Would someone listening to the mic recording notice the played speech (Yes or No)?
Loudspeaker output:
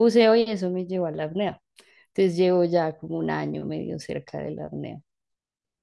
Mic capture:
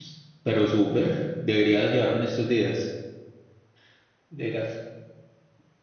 No